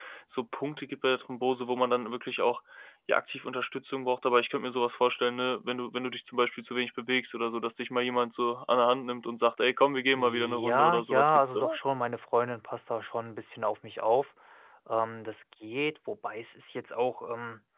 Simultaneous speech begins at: 10.1 s

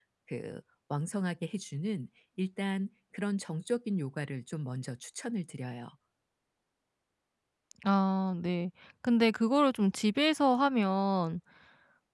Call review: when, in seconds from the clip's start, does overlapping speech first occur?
none

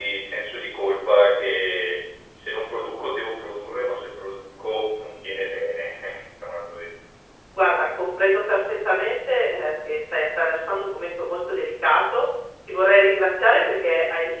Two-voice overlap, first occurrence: none

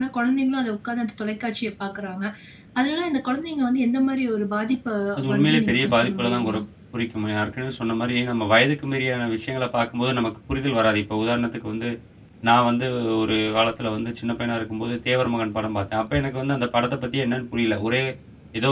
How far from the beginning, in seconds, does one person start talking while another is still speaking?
5.3 s

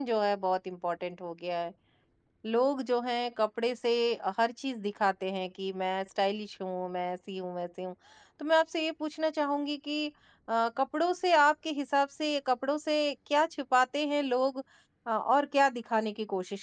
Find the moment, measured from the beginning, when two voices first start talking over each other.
none

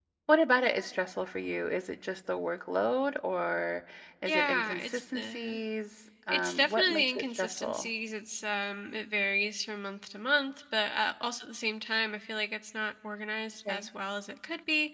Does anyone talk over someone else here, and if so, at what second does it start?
4.3 s

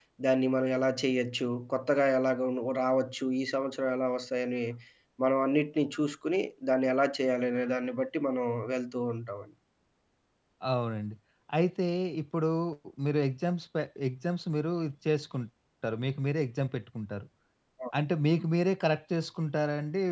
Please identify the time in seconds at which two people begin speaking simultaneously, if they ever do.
none

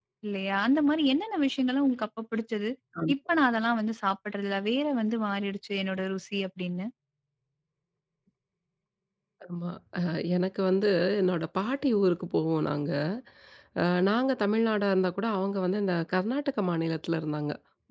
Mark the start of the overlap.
none

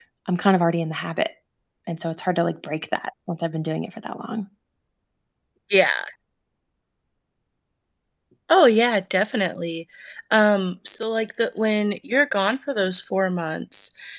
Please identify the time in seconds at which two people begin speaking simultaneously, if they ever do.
none

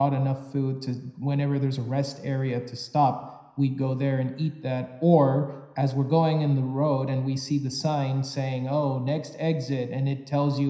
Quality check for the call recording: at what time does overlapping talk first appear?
none

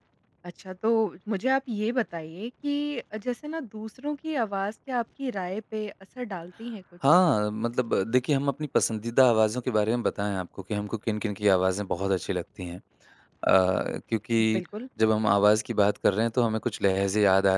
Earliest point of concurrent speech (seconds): none

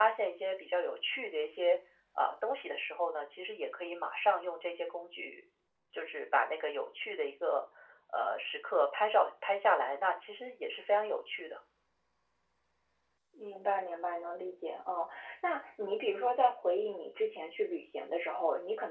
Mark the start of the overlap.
none

